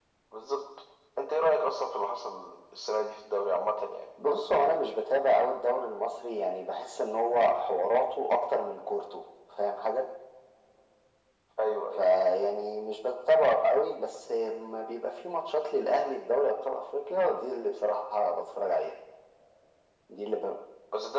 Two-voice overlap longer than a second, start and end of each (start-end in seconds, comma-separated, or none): none